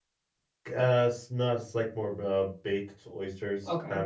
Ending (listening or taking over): taking over